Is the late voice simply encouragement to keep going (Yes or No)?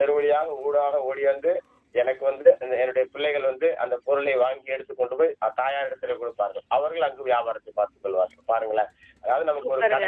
No